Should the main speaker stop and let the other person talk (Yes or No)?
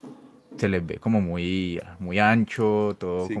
Yes